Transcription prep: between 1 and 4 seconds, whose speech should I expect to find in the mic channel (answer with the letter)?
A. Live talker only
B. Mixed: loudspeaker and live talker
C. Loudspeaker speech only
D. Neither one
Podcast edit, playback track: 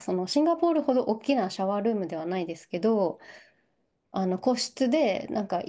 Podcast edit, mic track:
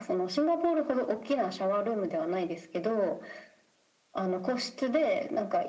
C